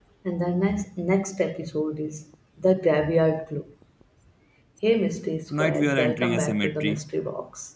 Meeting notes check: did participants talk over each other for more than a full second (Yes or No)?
Yes